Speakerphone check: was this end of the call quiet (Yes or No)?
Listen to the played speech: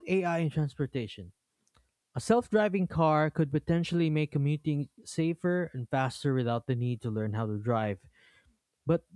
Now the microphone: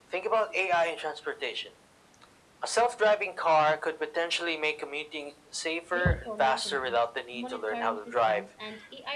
No